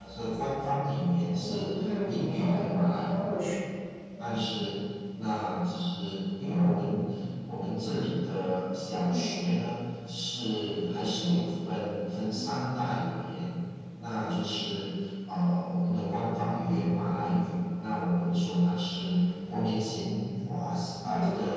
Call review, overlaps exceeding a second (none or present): present